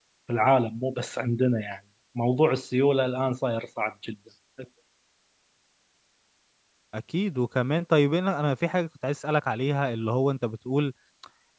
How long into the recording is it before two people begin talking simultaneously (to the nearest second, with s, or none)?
none